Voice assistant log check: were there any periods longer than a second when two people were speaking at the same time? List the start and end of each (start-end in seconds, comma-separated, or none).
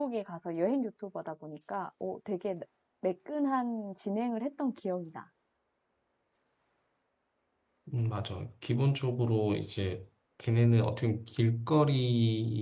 none